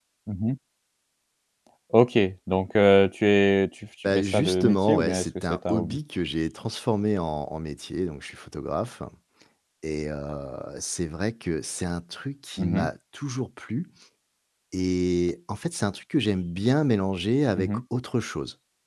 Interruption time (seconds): 4.0 s

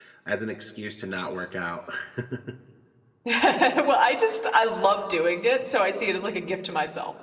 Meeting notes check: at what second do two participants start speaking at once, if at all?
none

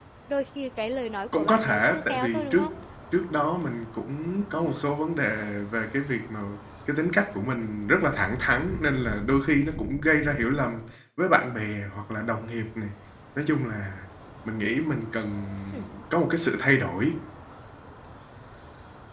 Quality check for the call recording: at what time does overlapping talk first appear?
1.4 s

